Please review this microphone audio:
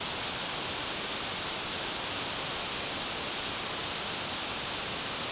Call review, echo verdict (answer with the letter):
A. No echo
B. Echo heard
A